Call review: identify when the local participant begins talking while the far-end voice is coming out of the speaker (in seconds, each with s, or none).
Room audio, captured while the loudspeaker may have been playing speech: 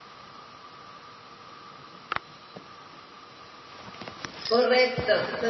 4.5 s